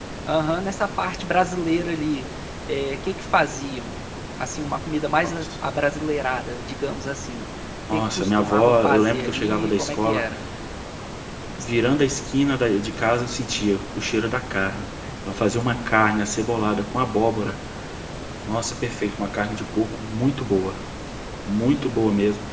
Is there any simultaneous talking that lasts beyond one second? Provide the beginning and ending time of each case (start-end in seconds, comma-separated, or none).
7.9-10.2